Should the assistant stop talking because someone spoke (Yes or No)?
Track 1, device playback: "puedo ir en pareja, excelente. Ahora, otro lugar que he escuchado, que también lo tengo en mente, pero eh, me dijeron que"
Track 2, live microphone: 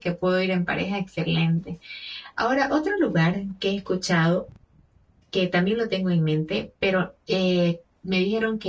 No